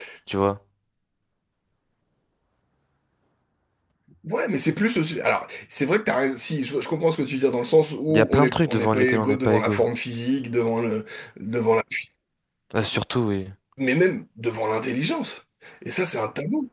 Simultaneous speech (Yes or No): Yes